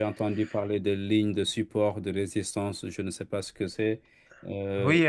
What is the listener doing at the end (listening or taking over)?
taking over